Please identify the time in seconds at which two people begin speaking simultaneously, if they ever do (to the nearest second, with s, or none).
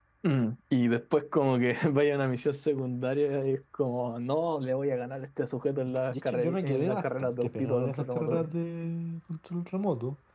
6 s